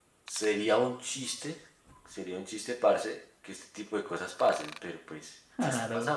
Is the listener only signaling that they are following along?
Yes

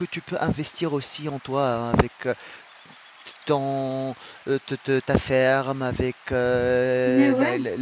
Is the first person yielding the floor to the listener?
No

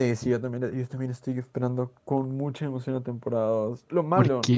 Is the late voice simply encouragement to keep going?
Yes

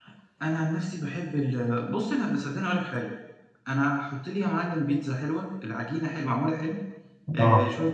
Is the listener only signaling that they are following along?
Yes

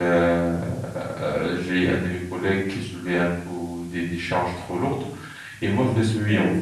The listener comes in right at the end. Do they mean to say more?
No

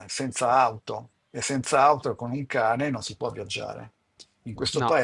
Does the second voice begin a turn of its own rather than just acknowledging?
No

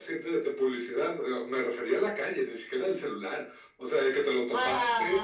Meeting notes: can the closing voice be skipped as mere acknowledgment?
Yes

